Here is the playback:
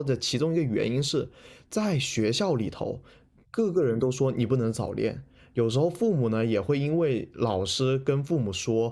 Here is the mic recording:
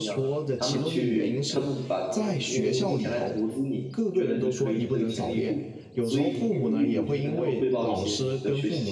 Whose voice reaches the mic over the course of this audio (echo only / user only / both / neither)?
both